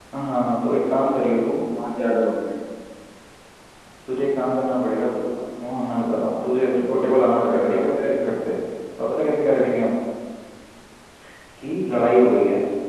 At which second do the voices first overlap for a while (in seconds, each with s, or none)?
6.8 s